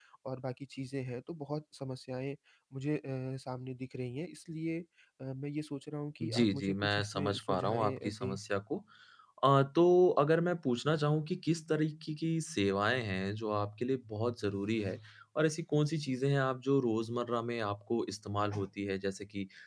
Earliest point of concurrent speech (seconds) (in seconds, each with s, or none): 6.2 s